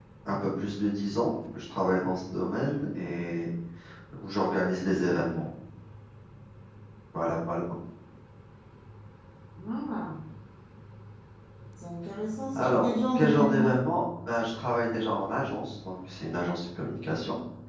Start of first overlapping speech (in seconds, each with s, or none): 12.5 s